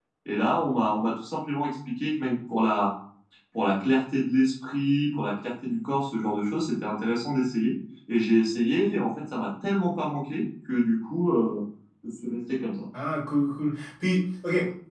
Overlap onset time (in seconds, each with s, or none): none